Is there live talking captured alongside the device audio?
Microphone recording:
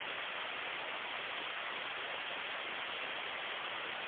No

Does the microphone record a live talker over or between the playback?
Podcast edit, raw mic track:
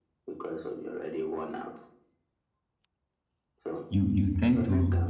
Yes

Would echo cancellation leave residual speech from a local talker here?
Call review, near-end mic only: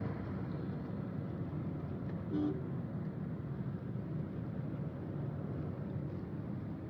No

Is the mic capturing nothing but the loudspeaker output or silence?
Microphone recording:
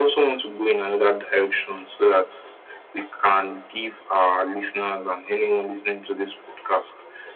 Yes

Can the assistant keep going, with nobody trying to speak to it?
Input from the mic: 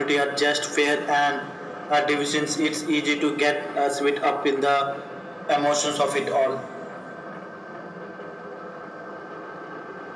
Yes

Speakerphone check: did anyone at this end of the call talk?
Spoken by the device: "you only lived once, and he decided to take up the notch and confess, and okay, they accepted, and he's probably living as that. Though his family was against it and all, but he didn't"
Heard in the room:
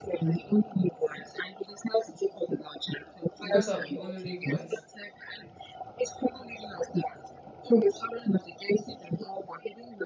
Yes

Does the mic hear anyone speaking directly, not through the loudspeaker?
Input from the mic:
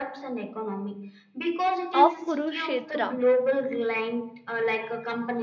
Yes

